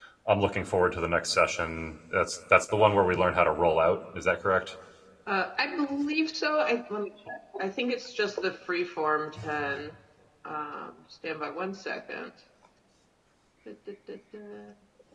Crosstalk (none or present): none